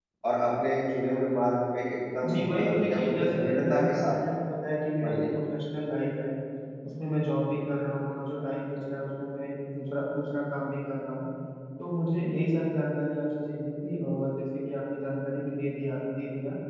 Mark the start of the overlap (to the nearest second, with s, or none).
2 s